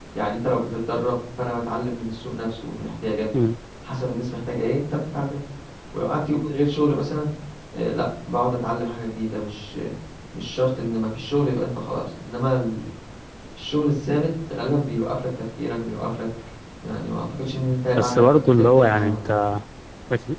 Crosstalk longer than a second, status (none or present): present